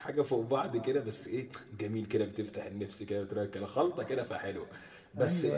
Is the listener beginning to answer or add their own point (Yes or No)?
No